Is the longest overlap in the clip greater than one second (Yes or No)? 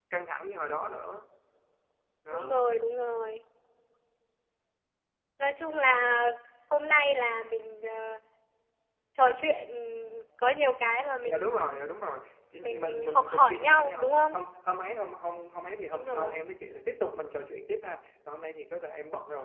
Yes